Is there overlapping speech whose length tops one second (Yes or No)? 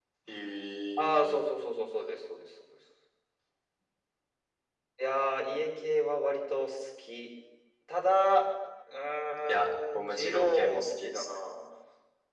Yes